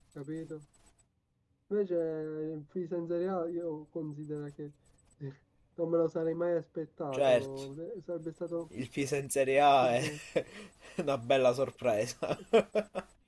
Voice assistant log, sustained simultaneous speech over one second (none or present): none